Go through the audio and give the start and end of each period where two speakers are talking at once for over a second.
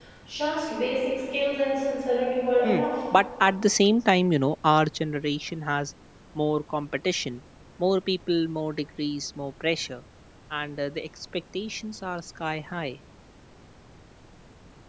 none

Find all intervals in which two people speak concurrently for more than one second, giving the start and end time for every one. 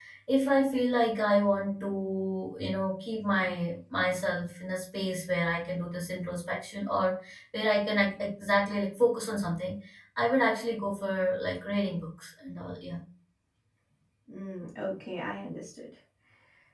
none

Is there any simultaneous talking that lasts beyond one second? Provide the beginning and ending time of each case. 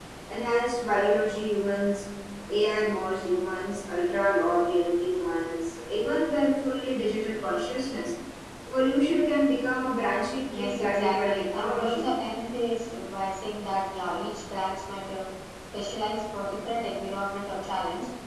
10.5-12.1

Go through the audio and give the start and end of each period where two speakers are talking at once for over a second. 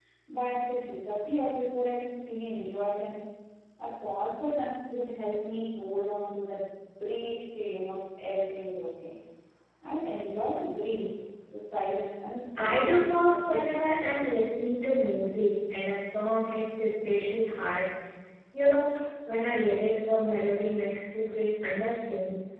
12.6-14.2

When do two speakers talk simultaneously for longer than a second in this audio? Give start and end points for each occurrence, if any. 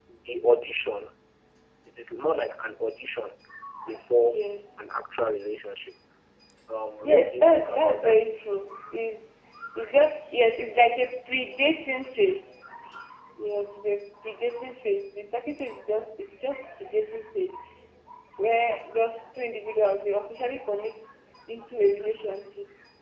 7.0-8.2

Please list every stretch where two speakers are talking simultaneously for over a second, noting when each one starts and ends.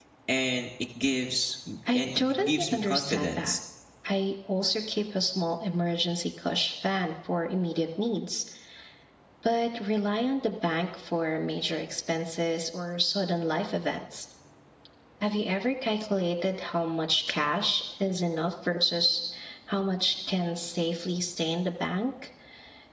1.9-3.6

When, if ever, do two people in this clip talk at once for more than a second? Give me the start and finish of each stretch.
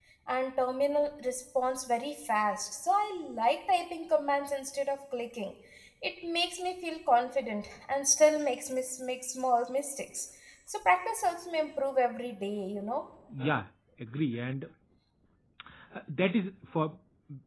none

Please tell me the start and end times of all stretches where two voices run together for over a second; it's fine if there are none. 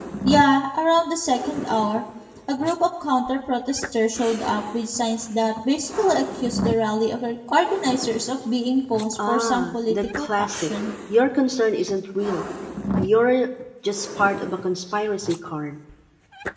9.3-10.7

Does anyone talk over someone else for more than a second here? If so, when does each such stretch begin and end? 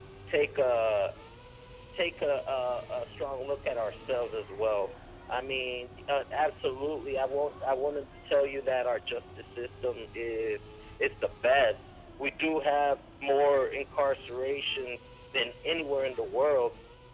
none

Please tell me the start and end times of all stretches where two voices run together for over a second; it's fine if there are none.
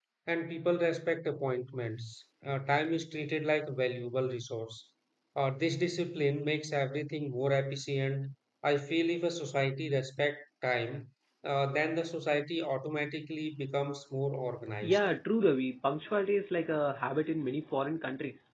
none

